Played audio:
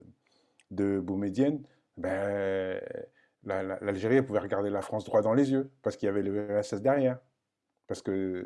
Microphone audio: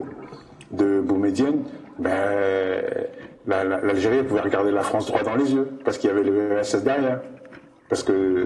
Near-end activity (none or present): none